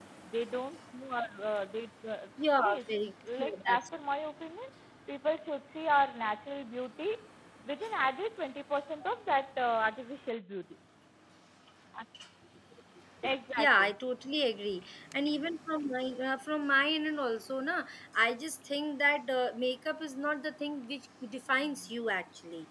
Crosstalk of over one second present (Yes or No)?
Yes